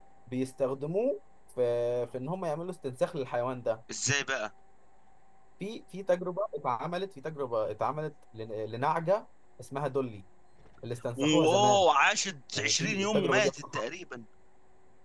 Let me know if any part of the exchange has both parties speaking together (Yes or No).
Yes